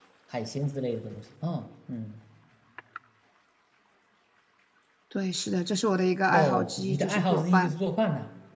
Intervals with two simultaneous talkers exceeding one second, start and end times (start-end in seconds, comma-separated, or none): 6.3-7.7